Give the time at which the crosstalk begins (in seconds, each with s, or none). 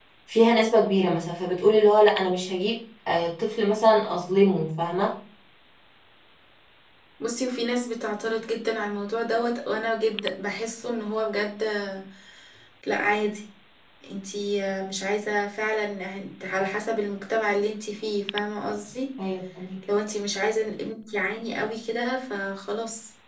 none